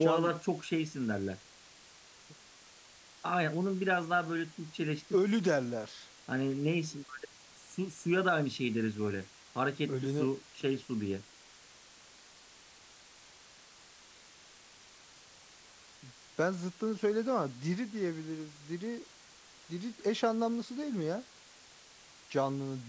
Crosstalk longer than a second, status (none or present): none